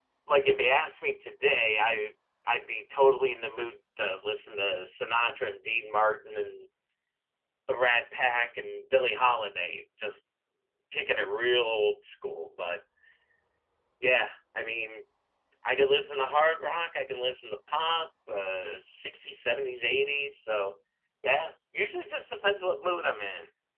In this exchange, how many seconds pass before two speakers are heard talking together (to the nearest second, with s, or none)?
none